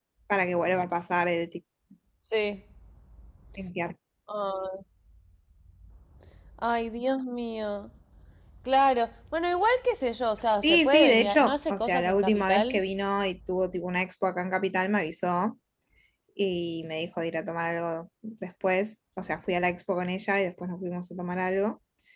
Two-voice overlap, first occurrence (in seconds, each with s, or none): 10.6 s